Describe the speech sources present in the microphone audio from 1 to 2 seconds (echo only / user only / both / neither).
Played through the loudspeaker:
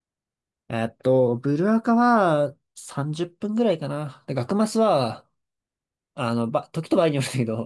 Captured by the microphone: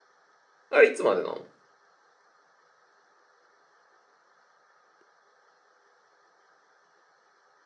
user only